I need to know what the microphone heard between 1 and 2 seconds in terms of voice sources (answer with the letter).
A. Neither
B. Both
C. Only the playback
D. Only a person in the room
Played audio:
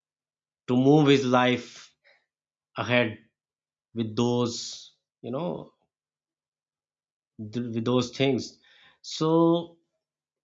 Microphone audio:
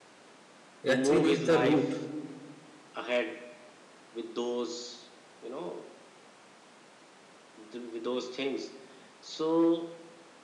B